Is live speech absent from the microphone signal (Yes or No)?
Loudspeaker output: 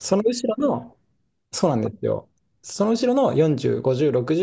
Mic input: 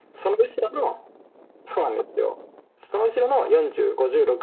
Yes